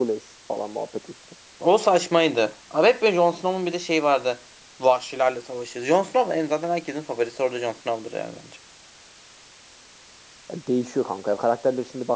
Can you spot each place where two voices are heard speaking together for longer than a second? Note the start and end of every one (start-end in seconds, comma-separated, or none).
none